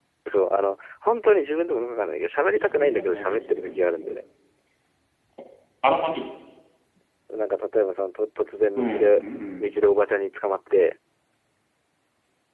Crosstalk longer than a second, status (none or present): present